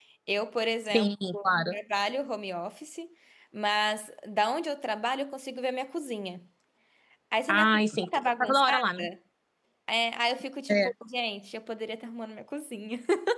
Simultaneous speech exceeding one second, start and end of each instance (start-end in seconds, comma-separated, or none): 7.5-9.0